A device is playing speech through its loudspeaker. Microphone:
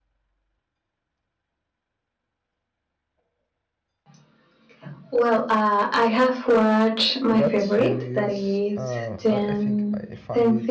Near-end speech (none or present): present